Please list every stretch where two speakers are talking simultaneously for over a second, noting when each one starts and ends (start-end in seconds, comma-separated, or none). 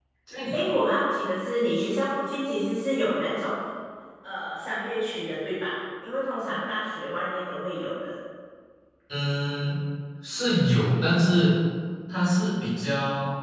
none